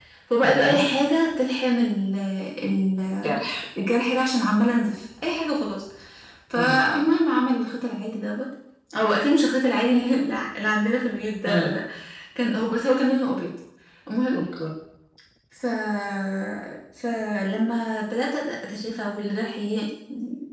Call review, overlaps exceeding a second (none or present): none